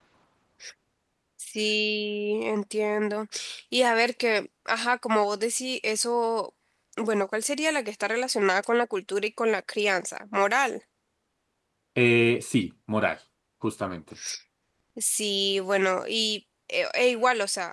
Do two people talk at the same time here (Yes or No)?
No